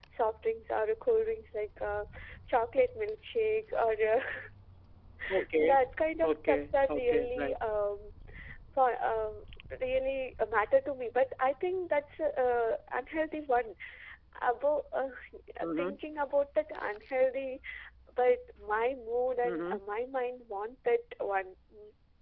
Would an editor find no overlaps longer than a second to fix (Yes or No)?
No